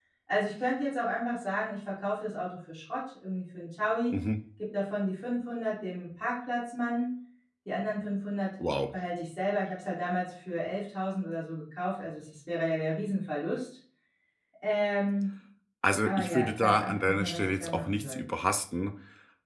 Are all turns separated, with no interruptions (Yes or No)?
No